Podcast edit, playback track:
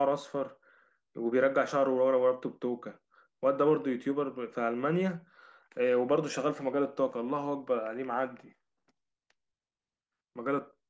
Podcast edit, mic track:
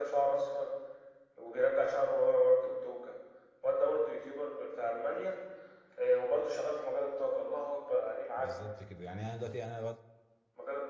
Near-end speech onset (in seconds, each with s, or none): 8.4 s